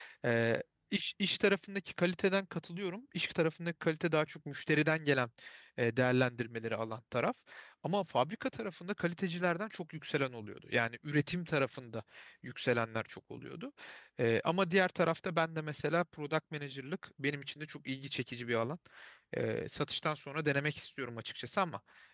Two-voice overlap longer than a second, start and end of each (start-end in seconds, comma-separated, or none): none